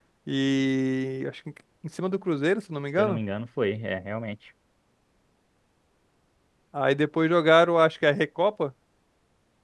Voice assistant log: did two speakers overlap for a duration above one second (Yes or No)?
No